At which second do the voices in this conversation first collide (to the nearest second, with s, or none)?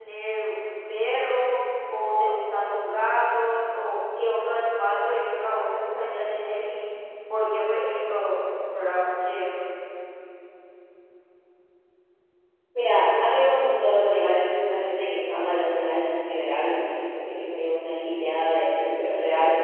none